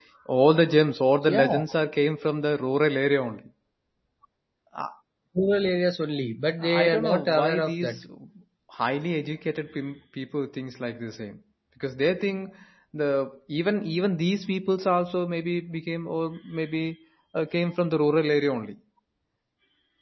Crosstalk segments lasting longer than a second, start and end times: 6.6-8.0

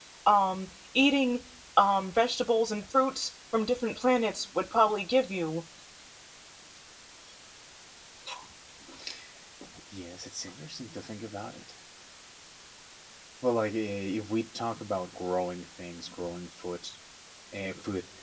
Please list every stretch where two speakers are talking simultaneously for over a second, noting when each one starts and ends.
none

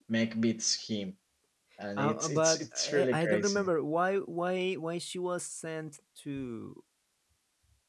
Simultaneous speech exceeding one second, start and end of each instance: 2.0-3.7

